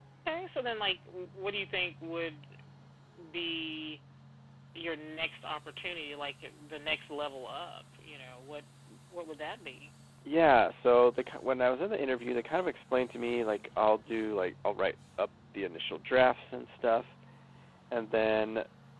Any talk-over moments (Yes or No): No